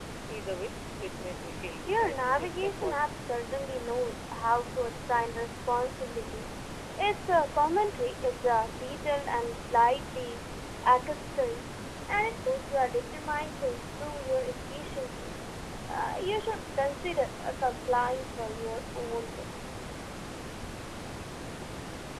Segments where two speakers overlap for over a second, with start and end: 1.9-3.1

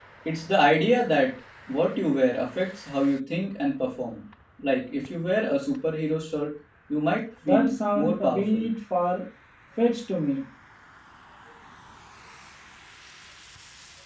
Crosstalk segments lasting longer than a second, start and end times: 7.5-8.7

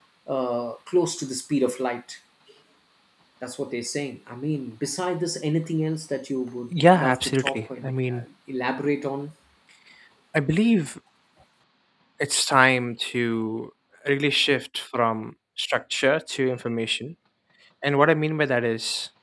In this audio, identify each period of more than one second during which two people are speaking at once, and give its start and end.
6.7-8.2

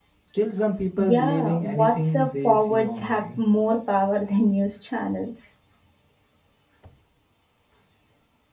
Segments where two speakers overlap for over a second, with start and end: 1.0-3.2

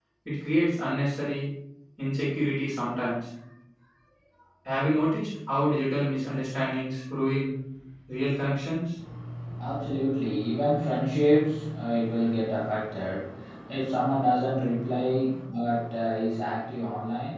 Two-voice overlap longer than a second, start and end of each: none

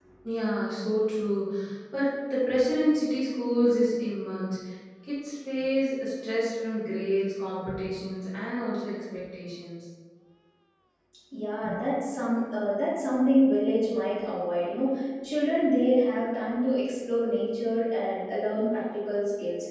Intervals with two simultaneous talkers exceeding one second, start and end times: none

